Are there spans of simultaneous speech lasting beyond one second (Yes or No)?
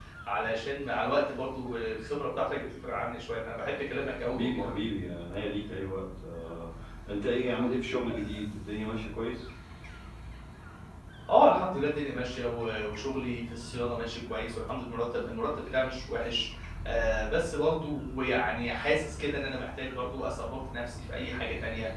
No